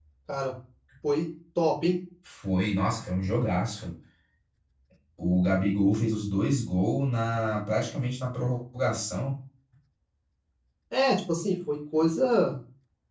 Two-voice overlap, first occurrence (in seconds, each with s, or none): none